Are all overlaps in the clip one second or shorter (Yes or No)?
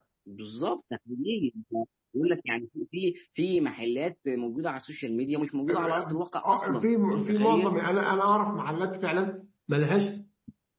No